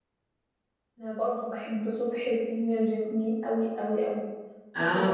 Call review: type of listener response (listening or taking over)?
listening